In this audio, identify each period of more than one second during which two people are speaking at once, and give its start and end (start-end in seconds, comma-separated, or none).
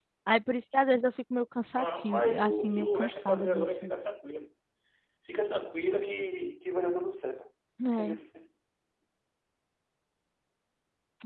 1.8-3.7